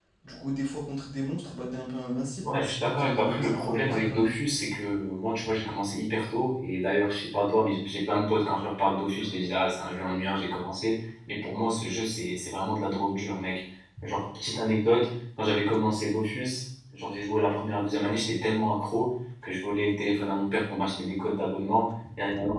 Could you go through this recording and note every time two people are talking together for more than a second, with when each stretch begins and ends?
3.0-4.3

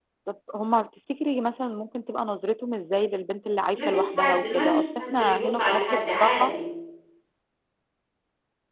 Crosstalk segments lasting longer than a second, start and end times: 3.7-6.5

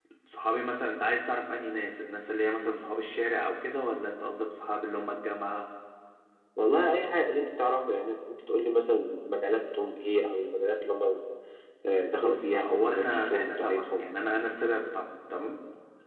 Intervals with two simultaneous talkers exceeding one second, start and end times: 12.1-14.1

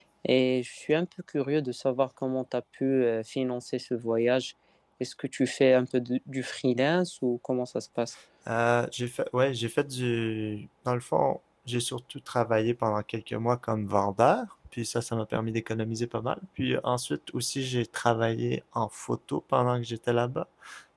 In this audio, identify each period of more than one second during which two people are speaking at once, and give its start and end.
none

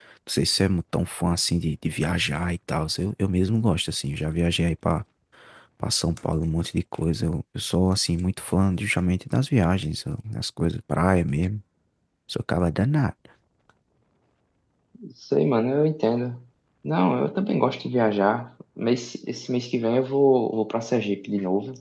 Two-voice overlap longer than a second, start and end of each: none

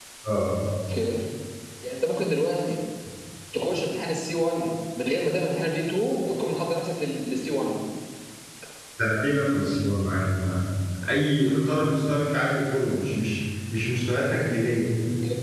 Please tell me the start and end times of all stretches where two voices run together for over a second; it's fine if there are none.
none

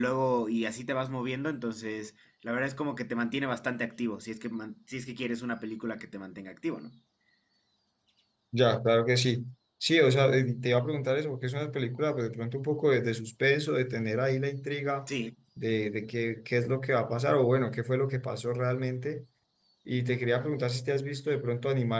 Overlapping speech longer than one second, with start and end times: none

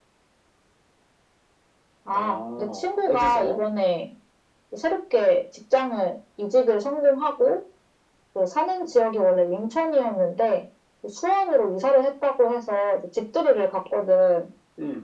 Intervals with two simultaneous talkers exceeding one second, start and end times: 2.1-3.6

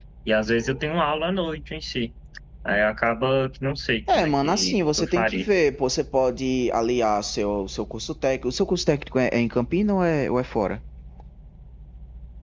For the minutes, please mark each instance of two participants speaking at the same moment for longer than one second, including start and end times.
4.1-5.5

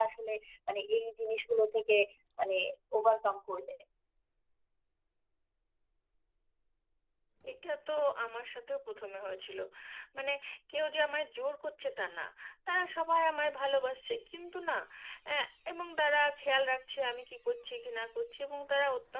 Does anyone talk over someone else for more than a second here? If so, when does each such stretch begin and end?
none

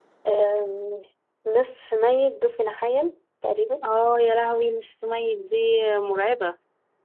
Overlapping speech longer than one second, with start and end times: none

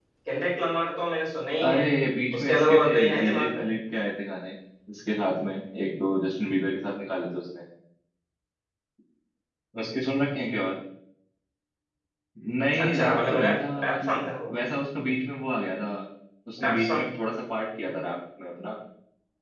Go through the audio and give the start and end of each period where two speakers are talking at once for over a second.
2.4-3.6, 12.8-14.3

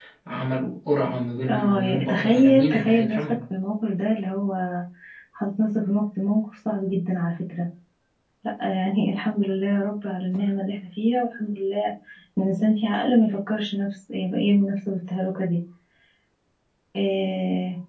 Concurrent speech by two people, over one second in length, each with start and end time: 1.5-3.2

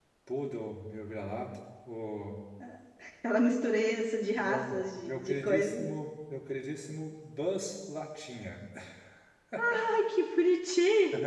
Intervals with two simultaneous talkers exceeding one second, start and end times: 4.4-5.8

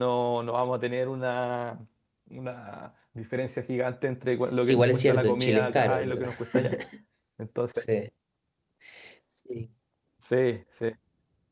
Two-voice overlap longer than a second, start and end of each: 4.6-6.3

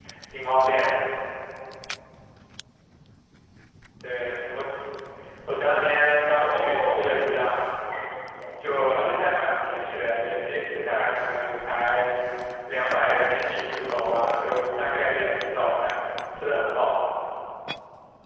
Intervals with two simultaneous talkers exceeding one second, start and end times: 5.9-7.1

